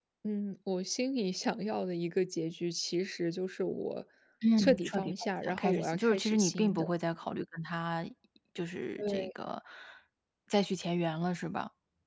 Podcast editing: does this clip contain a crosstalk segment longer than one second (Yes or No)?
Yes